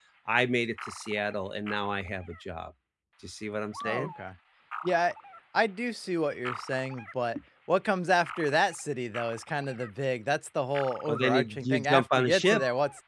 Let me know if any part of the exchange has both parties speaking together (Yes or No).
Yes